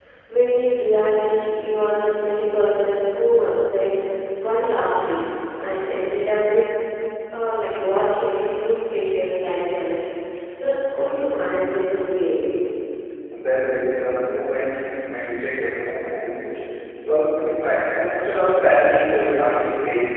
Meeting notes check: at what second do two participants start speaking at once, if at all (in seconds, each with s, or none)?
none